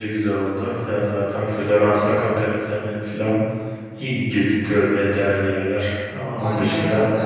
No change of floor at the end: No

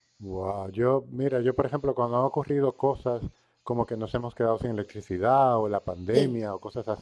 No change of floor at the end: Yes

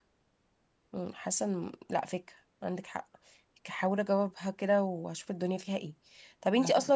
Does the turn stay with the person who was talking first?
Yes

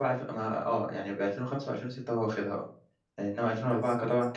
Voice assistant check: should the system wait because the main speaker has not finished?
Yes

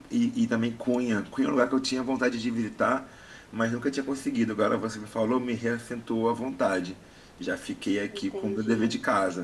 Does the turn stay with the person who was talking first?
Yes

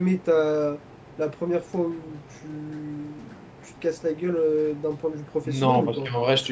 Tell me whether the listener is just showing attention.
No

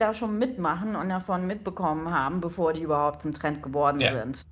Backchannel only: Yes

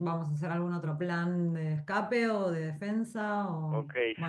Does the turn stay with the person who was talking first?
No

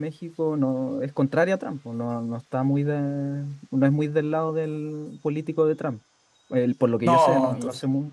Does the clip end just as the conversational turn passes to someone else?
Yes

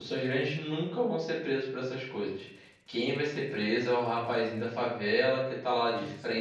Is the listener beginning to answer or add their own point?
No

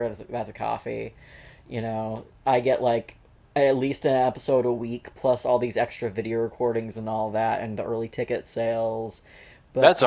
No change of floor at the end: No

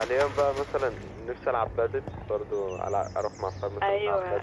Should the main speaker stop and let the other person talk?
Yes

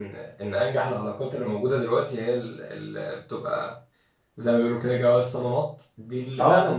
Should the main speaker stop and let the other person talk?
No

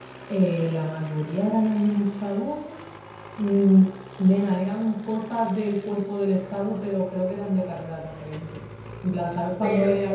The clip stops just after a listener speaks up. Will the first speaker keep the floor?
Yes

